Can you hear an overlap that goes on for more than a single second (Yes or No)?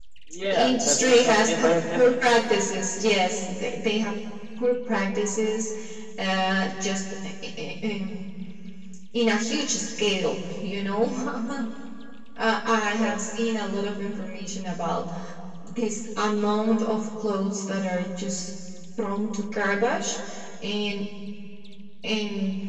Yes